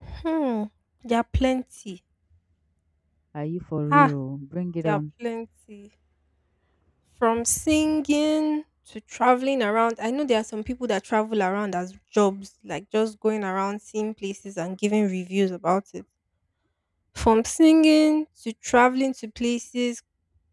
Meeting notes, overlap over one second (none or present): none